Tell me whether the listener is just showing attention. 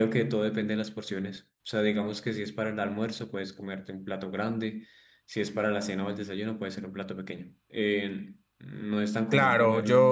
No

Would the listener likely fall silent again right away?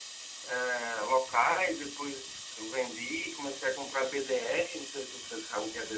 No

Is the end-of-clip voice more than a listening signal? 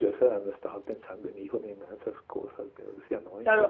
Yes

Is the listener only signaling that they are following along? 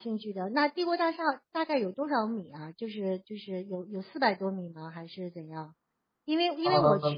Yes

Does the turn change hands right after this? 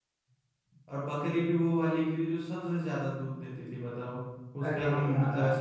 No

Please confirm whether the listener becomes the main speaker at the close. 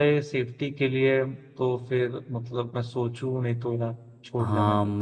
Yes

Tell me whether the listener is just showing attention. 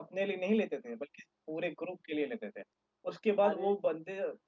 Yes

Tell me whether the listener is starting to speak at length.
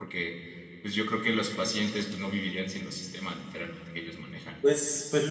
Yes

